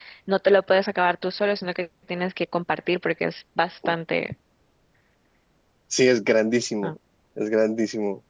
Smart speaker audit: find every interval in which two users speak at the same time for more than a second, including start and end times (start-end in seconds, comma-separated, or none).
none